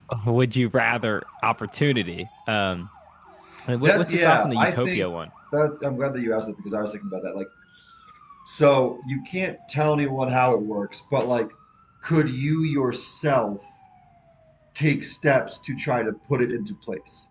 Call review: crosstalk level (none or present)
present